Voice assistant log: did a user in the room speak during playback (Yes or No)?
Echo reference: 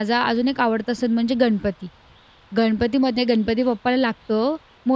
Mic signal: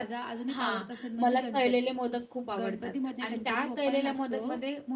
Yes